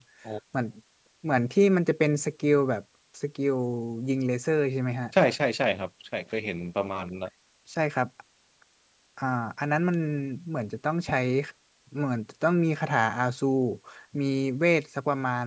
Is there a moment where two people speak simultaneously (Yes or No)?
No